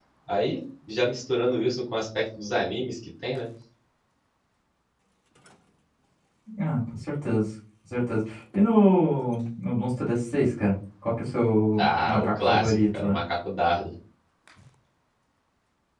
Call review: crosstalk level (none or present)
present